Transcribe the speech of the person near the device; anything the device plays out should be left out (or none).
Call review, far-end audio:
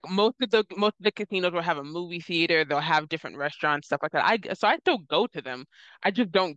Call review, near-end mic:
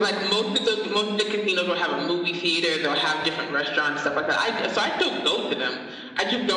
none